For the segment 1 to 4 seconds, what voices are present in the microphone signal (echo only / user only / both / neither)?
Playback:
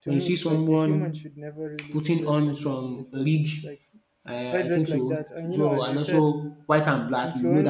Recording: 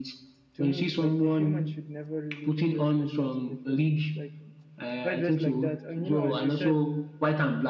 echo only